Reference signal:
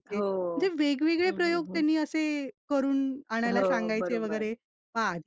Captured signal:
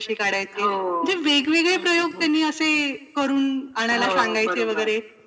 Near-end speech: none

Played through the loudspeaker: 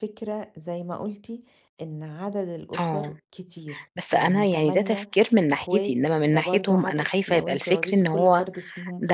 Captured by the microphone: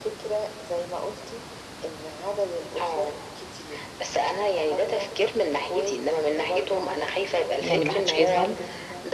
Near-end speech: present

